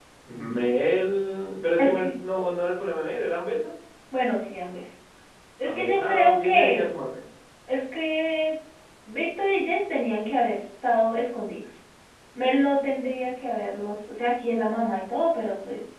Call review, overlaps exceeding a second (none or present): present